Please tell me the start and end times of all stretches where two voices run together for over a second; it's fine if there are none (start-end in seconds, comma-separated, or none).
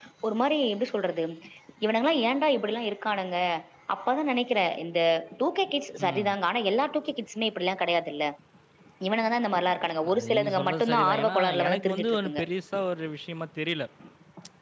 10.1-12.4